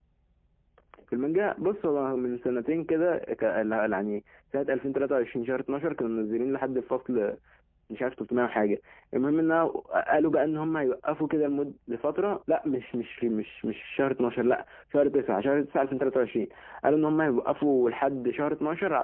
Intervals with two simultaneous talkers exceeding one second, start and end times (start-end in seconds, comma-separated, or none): none